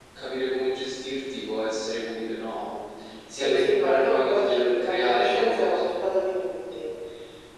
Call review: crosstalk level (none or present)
present